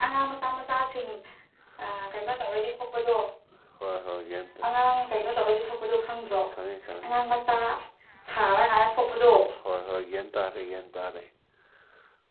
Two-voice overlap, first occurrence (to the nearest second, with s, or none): none